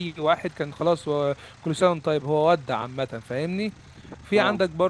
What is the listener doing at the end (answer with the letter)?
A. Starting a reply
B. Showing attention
B